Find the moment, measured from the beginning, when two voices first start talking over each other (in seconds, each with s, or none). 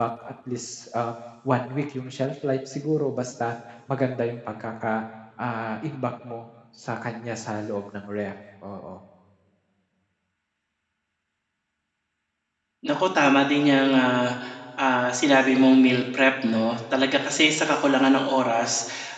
none